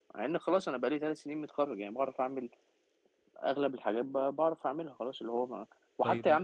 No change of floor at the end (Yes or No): Yes